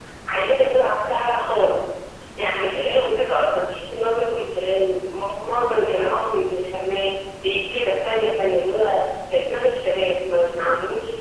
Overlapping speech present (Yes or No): No